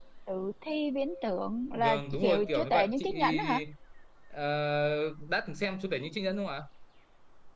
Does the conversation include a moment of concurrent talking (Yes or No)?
Yes